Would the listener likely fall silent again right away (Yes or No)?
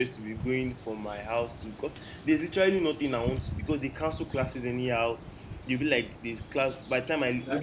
Yes